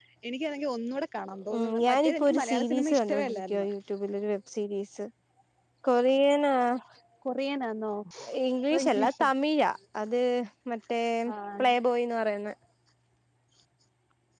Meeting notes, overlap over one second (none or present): present